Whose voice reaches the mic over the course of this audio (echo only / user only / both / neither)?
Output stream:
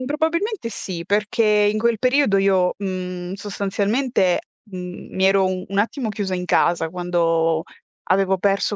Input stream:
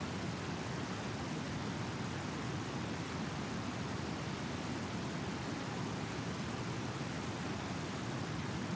neither